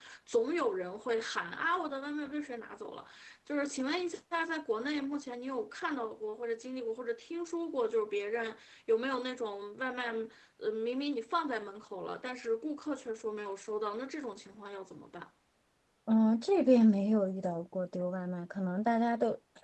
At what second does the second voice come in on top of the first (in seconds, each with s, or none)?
none